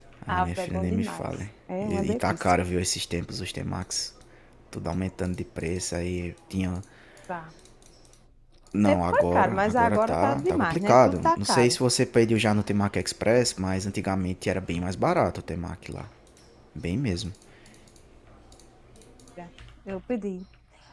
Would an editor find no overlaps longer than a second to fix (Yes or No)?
No